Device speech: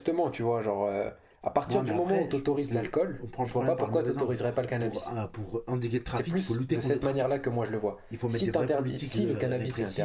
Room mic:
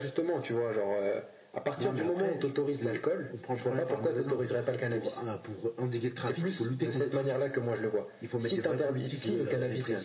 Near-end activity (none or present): none